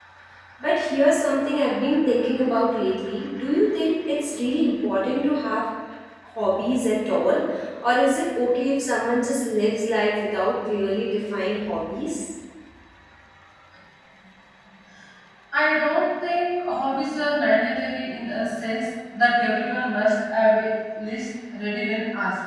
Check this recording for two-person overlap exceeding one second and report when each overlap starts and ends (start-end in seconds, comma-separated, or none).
none